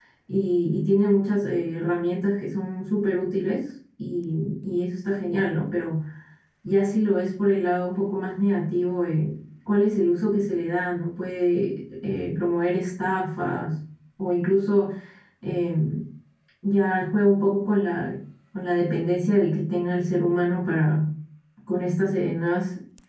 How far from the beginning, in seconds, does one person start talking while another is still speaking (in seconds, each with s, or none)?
none